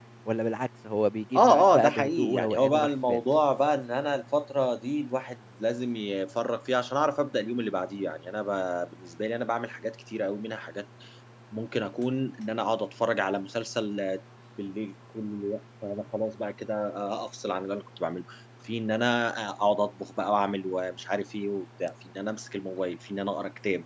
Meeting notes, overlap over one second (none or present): present